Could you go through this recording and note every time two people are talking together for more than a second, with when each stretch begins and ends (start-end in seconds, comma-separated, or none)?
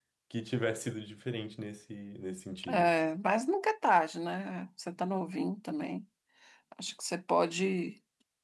none